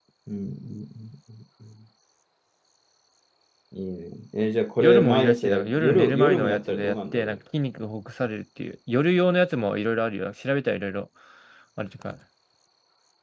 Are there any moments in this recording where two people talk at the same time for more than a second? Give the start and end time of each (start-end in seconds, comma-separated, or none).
4.8-7.4